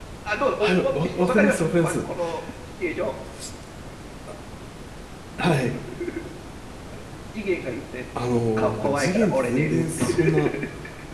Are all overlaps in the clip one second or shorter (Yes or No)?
No